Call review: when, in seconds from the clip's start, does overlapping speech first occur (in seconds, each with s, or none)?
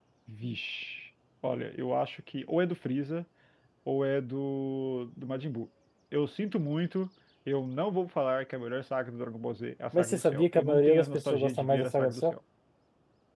9.9 s